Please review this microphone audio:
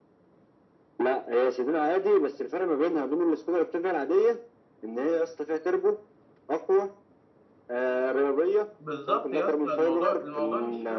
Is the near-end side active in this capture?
Yes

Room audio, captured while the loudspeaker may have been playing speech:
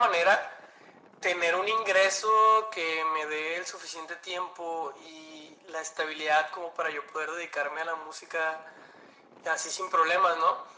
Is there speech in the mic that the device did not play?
No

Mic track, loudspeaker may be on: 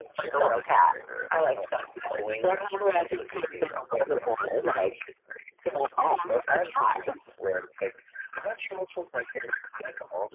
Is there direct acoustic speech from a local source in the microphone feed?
No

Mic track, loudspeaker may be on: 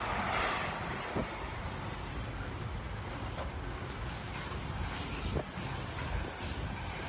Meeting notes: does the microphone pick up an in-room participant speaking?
No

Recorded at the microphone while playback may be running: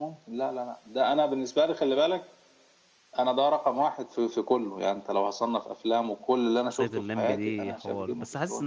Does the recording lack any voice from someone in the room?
No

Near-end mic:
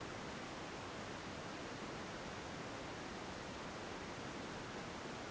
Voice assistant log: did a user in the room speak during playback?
No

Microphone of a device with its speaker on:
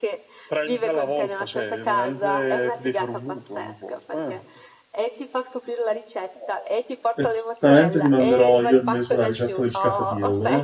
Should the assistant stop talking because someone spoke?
Yes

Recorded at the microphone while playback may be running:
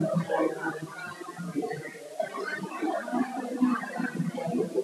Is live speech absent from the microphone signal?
No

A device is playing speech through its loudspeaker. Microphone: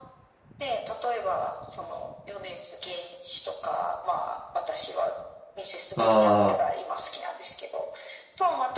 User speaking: Yes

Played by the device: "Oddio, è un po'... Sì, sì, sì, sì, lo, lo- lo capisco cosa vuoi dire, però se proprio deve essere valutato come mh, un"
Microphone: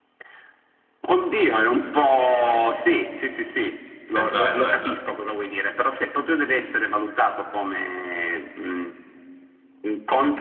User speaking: Yes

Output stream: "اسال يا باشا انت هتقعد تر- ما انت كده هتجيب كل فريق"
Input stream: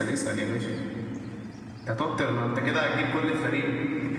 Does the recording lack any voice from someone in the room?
Yes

